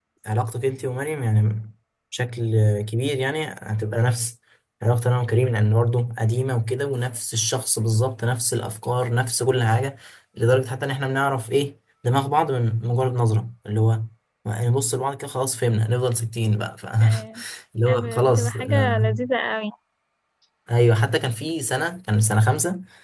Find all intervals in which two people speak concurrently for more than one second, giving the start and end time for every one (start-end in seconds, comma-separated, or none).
17.9-19.1